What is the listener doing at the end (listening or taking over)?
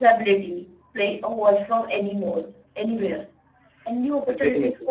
listening